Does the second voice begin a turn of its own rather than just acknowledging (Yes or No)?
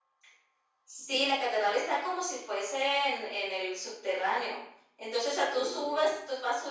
No